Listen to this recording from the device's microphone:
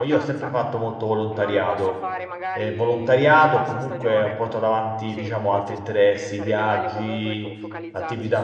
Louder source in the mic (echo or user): user